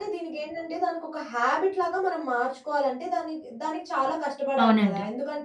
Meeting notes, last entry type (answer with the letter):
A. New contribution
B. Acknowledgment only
B